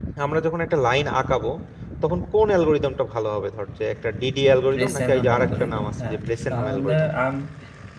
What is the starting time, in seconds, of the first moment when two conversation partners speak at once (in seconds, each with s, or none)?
4.7 s